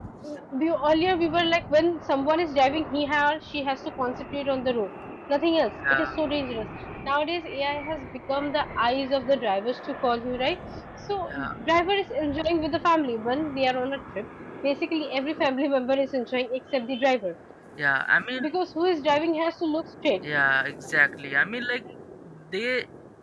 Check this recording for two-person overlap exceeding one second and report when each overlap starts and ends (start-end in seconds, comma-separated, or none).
none